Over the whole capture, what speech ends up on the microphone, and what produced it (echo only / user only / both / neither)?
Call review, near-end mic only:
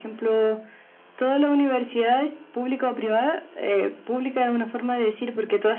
echo only